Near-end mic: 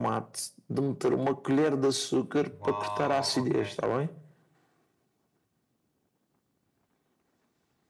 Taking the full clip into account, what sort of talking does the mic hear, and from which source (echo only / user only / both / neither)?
both